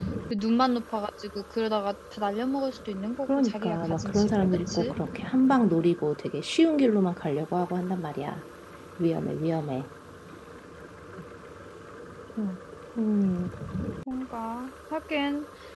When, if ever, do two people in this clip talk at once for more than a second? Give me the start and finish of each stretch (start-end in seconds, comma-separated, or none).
3.2-4.9